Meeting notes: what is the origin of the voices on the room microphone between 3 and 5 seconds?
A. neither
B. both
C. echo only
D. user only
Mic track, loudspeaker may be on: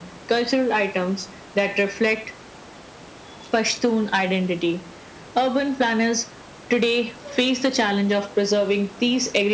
C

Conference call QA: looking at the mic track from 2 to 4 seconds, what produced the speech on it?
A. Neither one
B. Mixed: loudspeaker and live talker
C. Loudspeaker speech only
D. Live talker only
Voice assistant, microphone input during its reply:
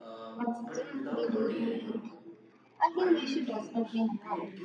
B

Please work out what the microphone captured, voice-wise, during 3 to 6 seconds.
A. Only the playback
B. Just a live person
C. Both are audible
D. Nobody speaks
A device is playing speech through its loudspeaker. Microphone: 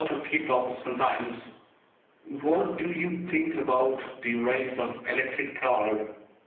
A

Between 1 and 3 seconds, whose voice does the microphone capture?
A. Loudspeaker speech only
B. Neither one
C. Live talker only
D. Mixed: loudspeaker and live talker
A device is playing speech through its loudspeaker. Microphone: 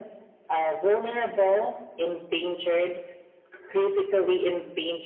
A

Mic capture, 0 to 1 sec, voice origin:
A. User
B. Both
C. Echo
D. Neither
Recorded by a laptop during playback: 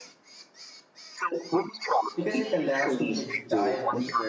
D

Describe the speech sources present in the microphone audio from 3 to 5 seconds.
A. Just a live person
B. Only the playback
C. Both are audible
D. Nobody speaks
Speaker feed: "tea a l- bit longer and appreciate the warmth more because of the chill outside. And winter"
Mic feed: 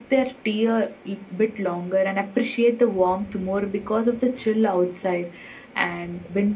B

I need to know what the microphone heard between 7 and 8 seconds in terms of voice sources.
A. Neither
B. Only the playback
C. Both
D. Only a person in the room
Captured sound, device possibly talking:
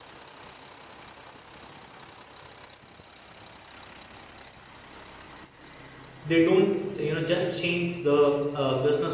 D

